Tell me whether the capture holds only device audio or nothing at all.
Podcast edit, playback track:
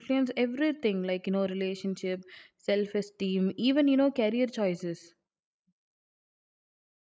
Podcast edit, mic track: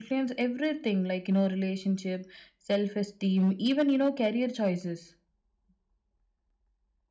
Yes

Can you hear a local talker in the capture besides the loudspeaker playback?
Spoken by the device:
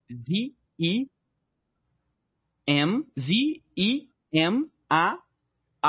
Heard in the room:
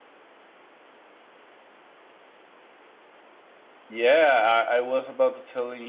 Yes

